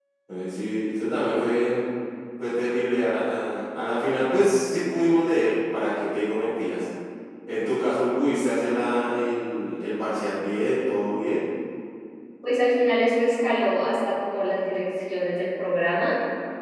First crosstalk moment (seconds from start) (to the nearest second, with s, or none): none